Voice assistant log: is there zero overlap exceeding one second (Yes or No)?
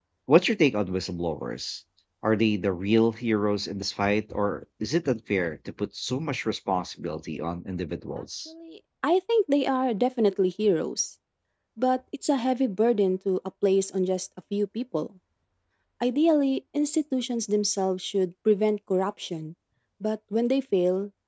Yes